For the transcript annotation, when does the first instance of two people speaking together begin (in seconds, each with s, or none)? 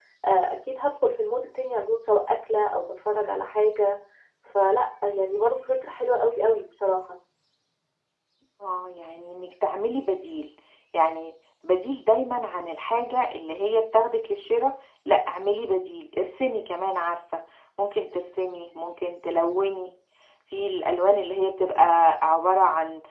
none